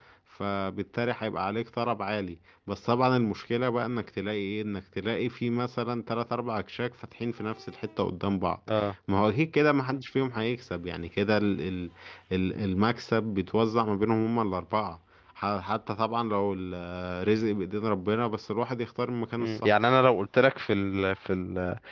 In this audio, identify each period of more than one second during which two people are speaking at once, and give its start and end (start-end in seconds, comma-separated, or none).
none